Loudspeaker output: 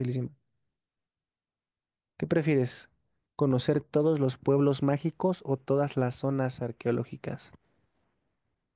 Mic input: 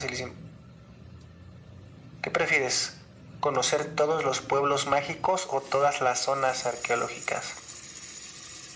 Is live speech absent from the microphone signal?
Yes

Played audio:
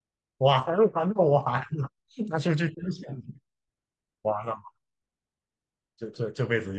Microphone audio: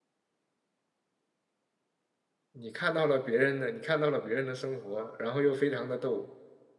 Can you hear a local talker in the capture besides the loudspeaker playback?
Yes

